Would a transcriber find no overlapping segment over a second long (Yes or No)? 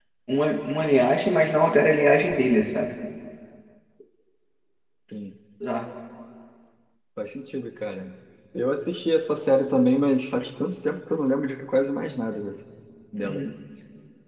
Yes